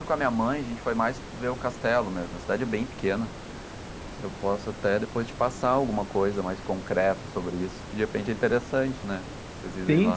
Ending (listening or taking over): taking over